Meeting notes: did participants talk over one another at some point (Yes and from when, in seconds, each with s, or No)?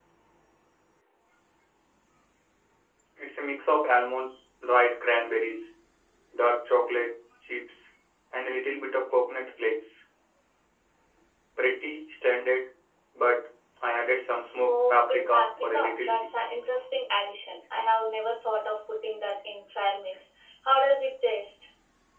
Yes, from 14.5 s